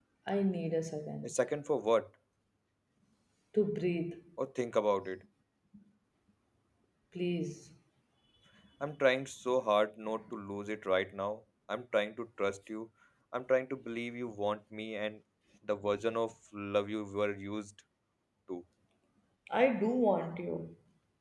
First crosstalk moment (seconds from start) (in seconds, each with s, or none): none